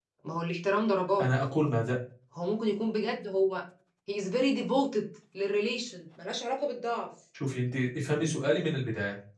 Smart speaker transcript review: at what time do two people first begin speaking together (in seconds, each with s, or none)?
none